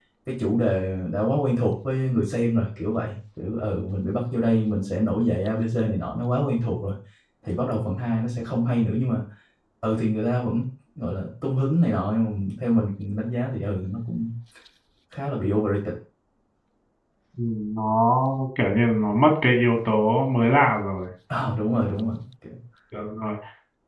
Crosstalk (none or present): none